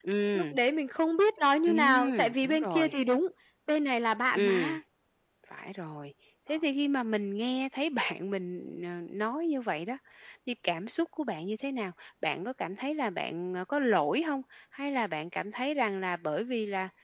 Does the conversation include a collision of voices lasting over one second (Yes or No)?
Yes